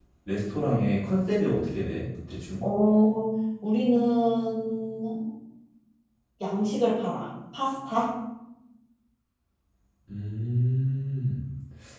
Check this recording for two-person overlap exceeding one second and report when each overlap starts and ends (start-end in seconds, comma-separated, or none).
none